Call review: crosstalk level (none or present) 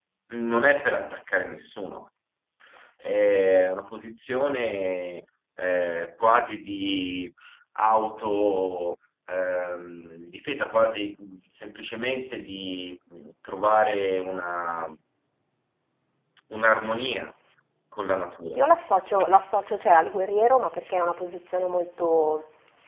none